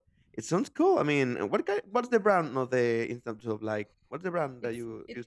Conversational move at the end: taking over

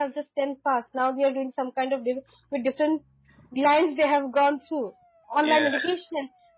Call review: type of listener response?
listening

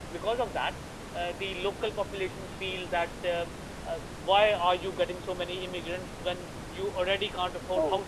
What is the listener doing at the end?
listening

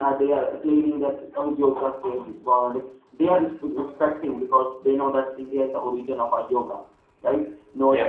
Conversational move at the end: listening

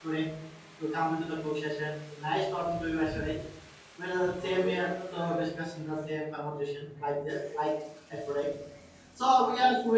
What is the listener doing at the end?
listening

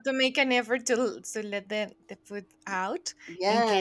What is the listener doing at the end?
taking over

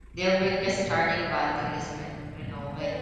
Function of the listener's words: taking over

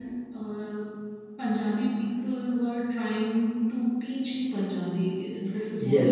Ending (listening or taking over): taking over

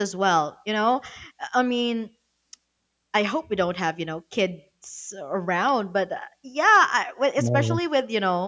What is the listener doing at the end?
listening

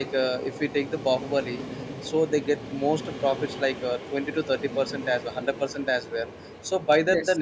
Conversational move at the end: listening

